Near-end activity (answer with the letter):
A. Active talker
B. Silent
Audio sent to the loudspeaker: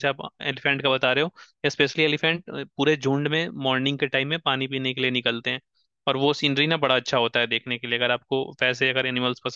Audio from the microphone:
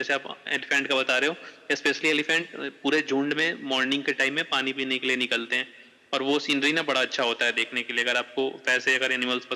B